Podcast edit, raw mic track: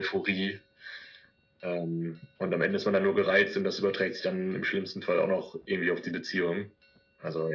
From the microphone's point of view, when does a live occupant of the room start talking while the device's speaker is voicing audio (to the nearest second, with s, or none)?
none